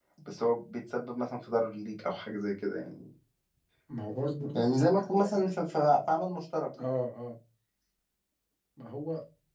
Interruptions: none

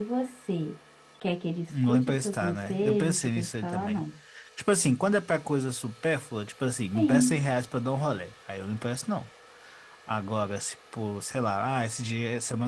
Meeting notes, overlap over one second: present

